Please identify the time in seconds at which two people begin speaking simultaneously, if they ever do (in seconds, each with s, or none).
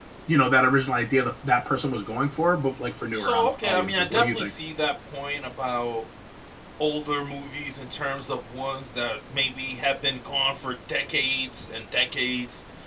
3.1 s